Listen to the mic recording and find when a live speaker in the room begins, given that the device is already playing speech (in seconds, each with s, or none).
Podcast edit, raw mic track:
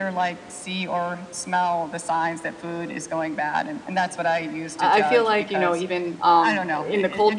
4.8 s